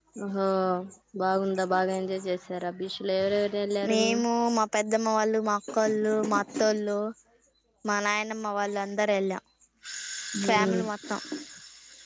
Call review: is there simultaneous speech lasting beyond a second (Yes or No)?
No